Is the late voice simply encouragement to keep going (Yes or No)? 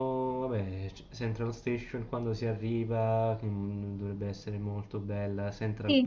No